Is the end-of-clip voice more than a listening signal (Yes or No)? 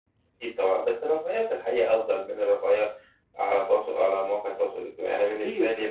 Yes